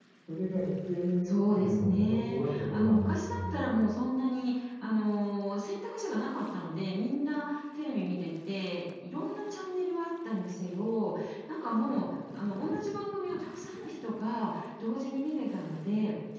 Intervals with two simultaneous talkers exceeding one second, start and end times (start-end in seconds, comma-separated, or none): 1.2-3.8